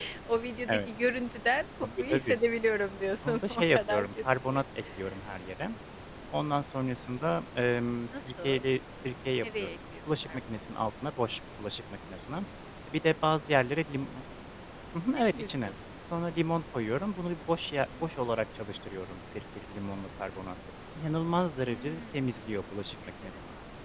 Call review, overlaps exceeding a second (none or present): present